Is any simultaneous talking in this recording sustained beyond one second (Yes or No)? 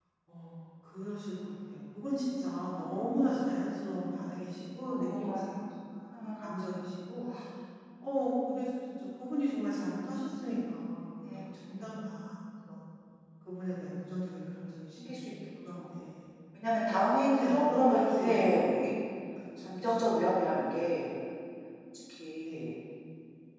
Yes